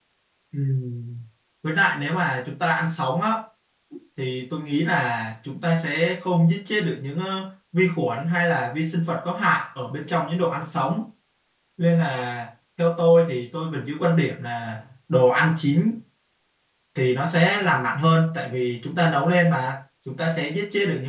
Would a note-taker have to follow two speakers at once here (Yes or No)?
No